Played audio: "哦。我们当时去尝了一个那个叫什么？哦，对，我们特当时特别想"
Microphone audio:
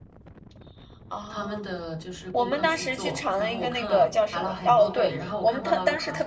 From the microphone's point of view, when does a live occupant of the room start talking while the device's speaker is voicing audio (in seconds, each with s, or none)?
1.3 s